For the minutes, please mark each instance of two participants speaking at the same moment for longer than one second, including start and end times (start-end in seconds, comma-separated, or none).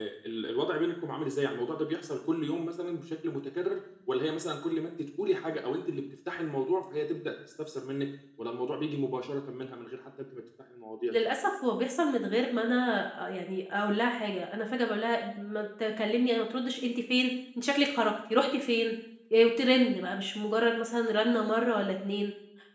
none